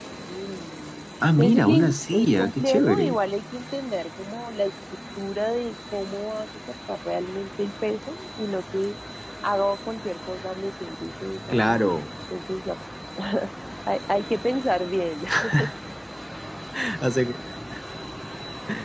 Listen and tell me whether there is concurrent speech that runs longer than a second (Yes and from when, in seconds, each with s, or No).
Yes, from 1.4 s